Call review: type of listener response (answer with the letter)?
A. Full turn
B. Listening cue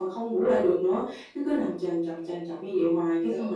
B